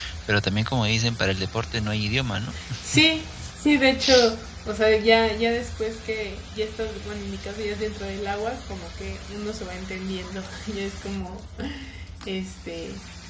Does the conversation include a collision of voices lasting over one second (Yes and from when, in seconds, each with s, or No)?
No